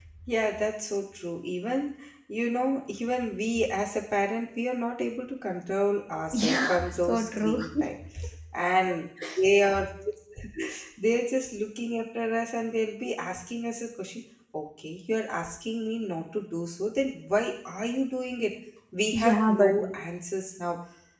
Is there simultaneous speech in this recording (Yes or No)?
Yes